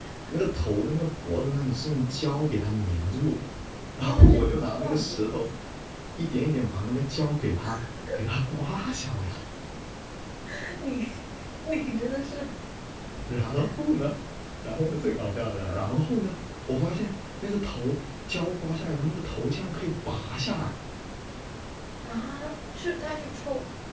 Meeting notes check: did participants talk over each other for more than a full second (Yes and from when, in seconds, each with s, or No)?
Yes, from 4.0 s